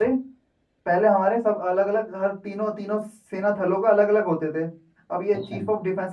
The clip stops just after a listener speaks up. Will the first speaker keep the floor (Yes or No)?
Yes